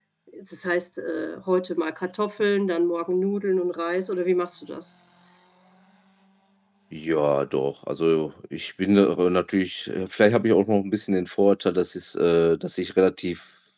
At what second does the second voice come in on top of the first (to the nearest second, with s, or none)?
none